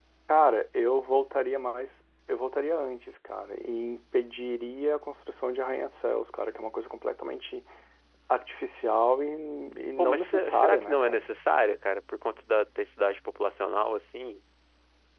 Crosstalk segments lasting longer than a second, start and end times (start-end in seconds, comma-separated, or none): 10.0-11.3